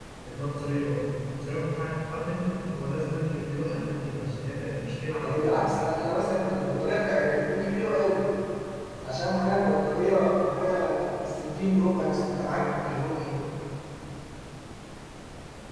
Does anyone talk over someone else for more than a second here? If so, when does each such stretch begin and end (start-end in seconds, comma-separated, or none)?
none